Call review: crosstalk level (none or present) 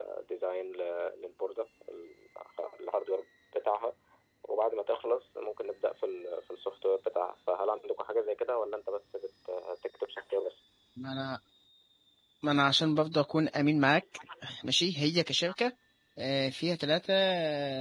none